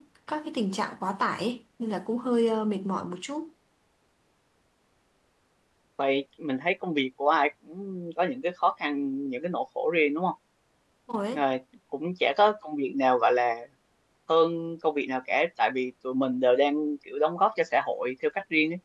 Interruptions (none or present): none